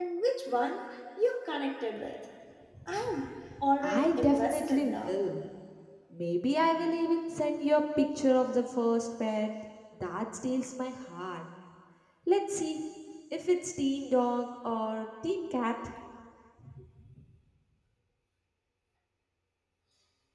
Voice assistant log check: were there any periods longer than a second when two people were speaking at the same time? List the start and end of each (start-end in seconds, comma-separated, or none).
3.8-5.2